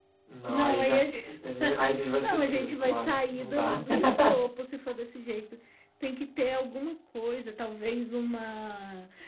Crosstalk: present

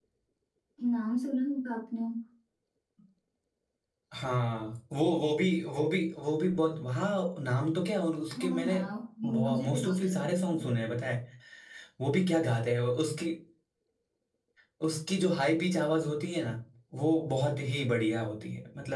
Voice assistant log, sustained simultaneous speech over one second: present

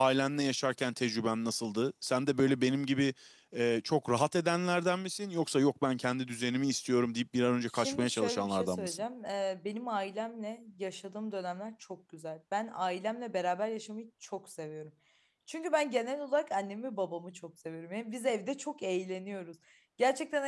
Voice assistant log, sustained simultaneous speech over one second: present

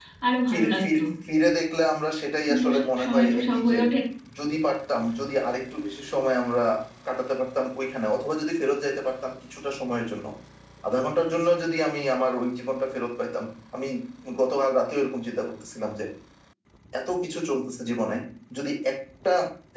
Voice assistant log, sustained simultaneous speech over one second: present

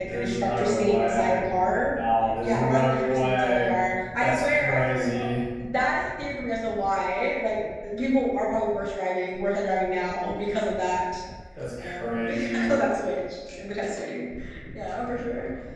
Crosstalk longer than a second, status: present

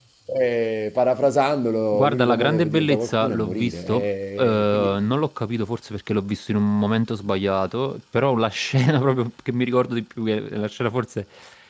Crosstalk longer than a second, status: present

